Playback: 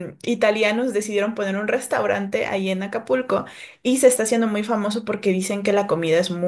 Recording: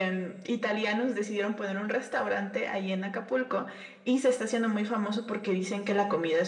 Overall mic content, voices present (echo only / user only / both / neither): echo only